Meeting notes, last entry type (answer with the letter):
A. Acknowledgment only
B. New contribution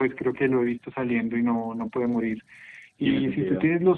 A